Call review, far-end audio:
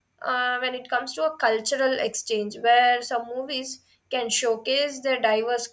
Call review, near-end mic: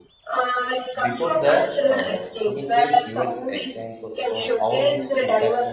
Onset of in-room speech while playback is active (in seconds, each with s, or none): 1.0 s